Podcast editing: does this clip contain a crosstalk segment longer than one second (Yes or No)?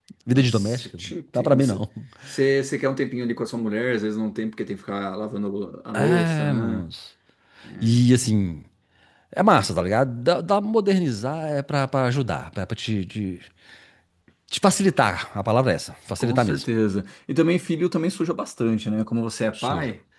Yes